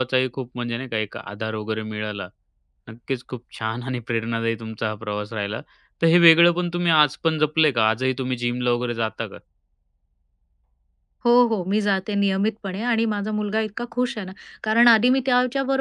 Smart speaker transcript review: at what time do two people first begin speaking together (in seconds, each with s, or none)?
none